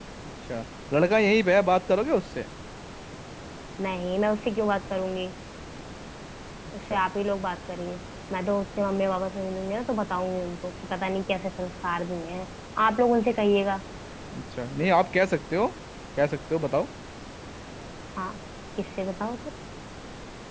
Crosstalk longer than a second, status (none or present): none